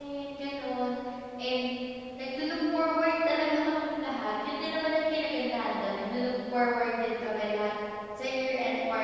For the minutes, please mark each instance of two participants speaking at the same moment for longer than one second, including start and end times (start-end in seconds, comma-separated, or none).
none